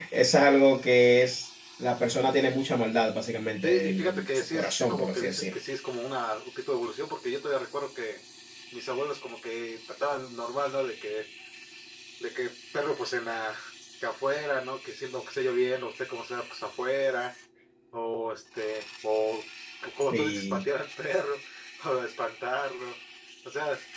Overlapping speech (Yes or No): Yes